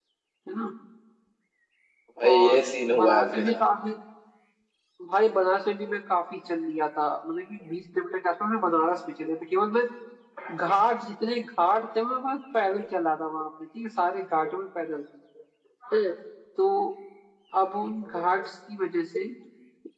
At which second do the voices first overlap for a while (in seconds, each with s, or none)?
2.3 s